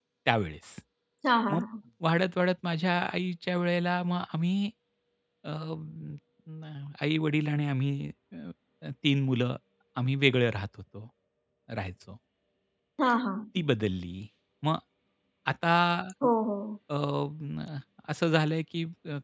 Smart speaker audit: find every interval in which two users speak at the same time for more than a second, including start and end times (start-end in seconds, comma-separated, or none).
none